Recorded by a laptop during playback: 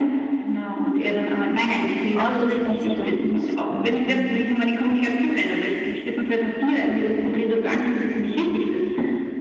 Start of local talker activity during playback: 2 s

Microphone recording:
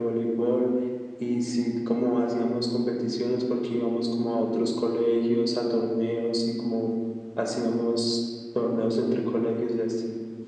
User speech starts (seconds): none

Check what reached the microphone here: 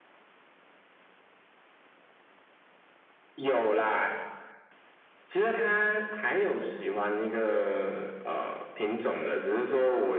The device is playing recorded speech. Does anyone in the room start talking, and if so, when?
none

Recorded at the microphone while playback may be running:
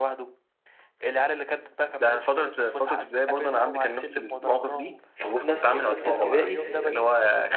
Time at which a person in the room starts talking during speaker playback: 5 s

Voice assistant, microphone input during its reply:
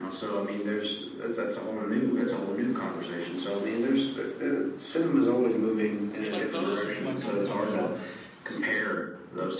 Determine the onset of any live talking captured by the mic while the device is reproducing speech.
6 s

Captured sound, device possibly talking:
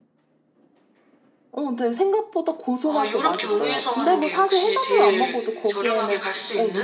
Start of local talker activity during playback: 3 s

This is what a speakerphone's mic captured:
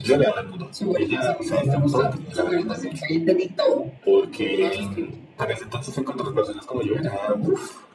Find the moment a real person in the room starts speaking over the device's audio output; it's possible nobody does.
5 s

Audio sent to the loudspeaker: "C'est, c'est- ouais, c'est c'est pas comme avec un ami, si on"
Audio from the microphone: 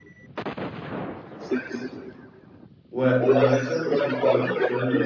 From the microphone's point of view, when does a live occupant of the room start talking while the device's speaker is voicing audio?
3 s

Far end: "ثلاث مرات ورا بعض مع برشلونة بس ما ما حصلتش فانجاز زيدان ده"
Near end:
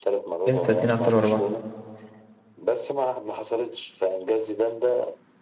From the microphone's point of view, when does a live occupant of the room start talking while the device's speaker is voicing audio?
0 s

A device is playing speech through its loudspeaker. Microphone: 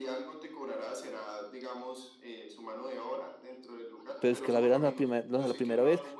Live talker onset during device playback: 4 s

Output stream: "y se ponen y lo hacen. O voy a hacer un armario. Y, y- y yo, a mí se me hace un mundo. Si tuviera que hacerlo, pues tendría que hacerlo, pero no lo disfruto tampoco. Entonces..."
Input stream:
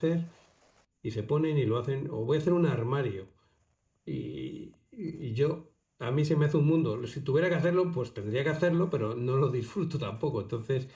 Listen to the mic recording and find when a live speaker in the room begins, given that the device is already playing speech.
none

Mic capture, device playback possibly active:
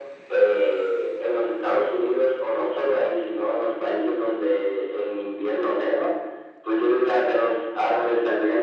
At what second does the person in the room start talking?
none

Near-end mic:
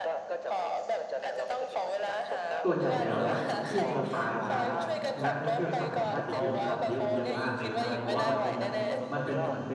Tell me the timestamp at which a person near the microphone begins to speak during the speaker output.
3 s

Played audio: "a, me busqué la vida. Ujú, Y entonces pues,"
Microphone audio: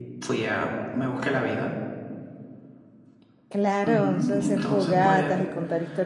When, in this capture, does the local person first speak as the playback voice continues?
3 s

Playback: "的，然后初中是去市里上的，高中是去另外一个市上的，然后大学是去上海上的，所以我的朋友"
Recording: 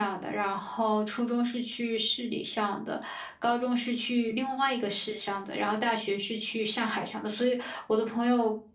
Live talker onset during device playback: none

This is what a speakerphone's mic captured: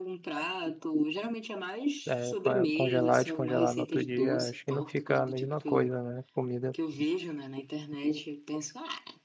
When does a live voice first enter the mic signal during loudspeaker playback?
2 s

